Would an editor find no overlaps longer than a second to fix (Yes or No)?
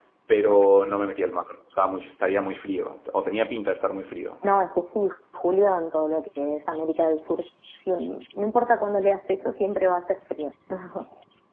Yes